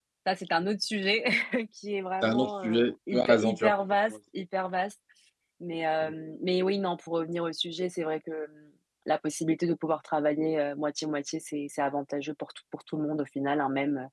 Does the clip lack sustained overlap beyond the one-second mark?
No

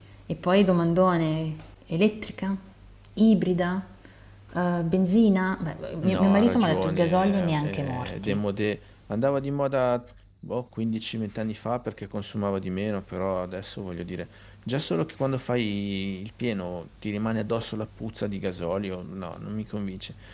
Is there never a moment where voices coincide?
No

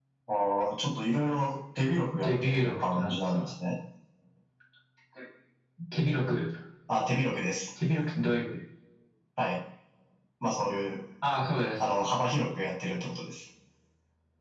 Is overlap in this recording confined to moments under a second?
No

